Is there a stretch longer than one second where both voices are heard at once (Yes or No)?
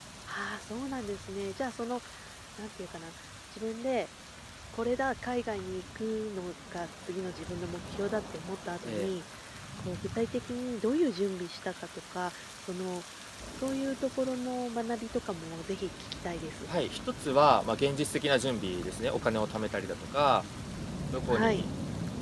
No